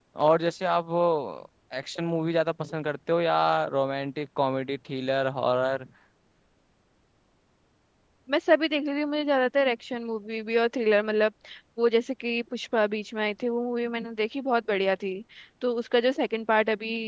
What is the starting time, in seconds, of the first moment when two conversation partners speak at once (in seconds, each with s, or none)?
none